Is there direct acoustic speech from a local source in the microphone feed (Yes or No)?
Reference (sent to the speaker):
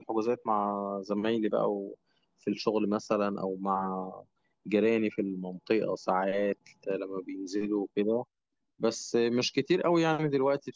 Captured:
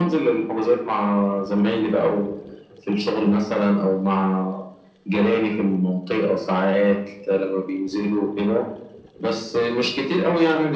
No